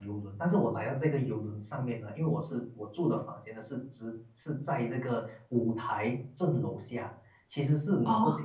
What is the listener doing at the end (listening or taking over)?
listening